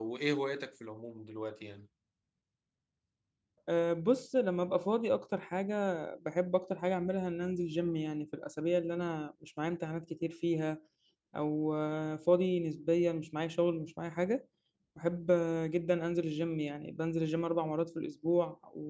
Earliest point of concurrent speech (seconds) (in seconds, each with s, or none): none